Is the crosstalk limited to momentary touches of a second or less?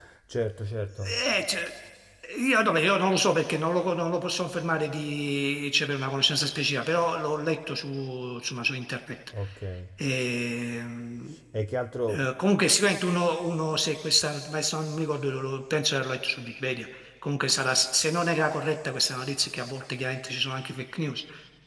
Yes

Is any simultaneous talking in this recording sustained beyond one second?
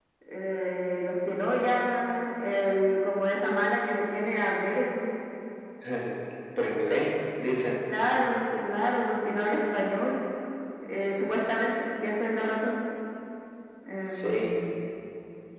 No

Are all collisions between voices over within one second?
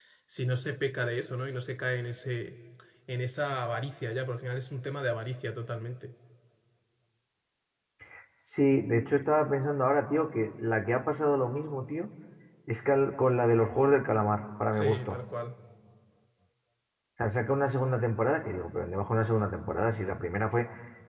Yes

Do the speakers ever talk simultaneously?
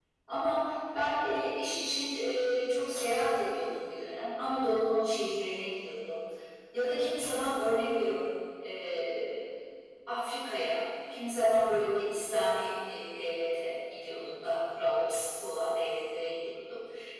No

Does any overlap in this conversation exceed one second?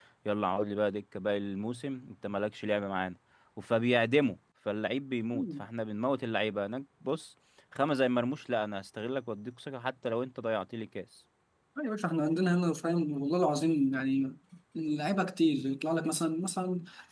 No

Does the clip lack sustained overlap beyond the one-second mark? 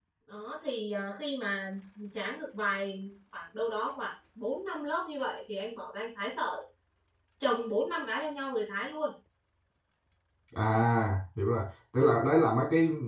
Yes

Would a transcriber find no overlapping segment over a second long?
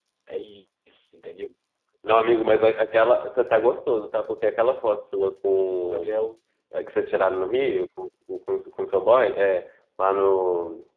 Yes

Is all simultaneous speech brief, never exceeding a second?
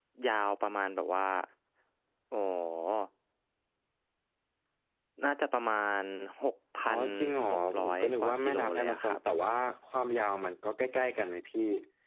No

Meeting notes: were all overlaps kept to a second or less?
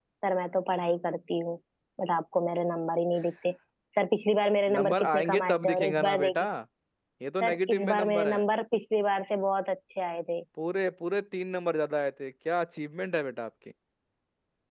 No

